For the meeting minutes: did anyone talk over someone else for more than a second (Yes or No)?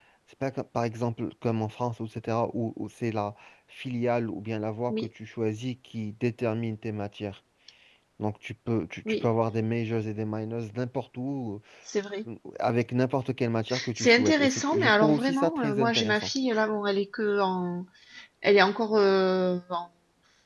Yes